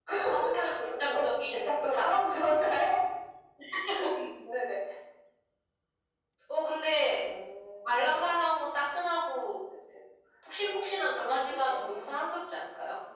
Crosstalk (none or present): present